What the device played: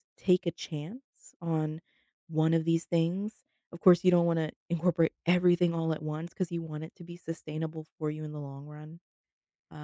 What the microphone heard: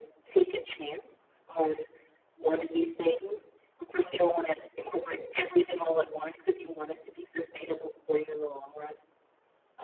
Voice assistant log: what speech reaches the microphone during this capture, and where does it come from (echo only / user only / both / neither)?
echo only